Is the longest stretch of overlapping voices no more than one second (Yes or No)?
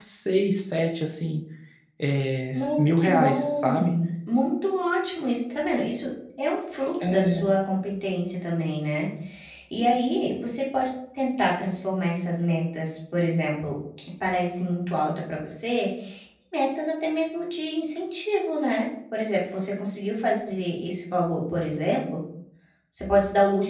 No